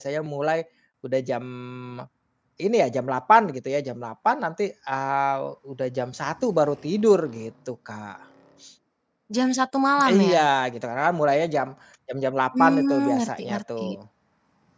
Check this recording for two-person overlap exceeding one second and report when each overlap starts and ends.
12.5-13.8

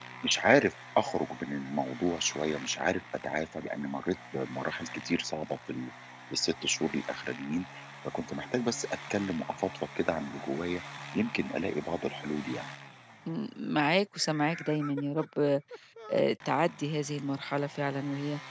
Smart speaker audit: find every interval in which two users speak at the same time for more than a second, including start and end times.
none

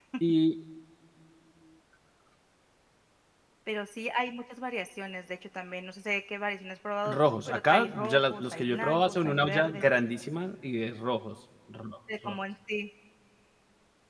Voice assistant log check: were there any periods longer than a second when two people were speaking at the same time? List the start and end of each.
7.0-9.9

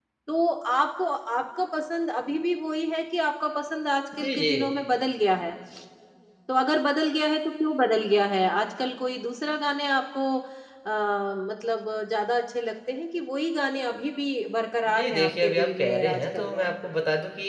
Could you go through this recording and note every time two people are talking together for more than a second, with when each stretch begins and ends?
14.8-16.7

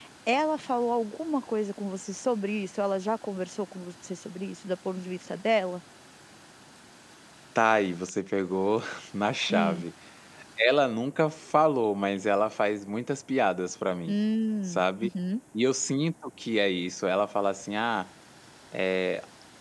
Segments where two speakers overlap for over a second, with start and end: none

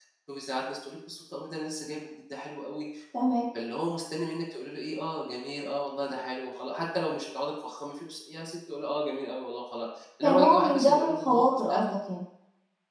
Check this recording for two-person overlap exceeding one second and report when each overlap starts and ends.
10.2-11.8

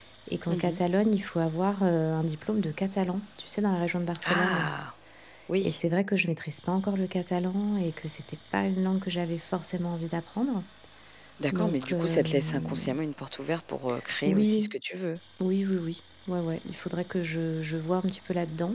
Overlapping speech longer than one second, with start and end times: 11.5-12.9

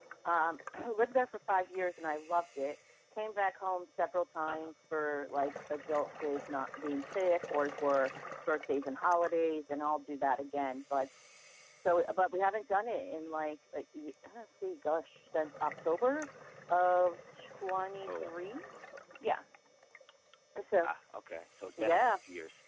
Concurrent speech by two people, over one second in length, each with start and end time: none

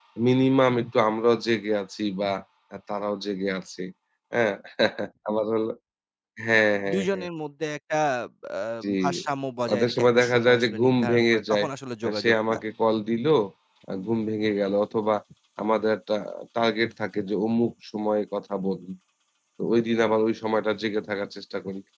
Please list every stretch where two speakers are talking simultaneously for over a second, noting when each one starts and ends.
9.7-11.7

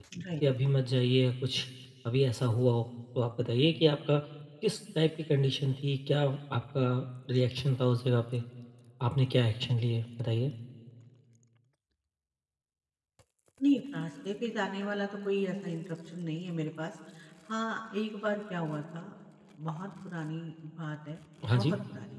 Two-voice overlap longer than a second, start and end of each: none

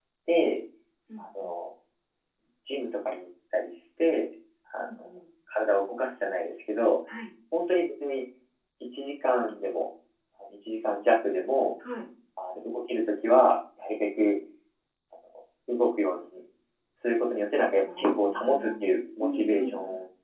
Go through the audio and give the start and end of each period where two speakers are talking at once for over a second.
18.0-19.7

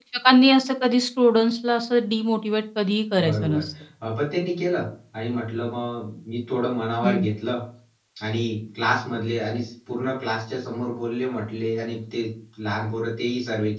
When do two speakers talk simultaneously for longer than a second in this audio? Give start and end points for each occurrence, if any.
none

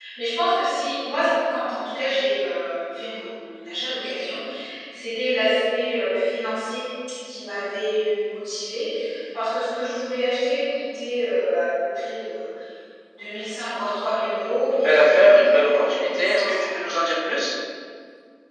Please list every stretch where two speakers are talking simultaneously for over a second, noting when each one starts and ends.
14.7-16.8

